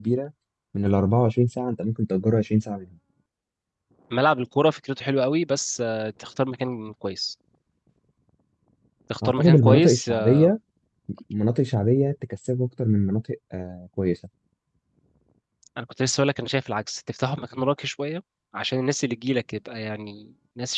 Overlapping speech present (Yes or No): Yes